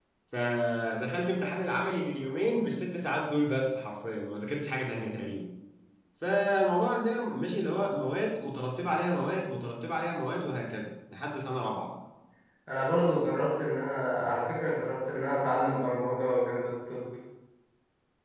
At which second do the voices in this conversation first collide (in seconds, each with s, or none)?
none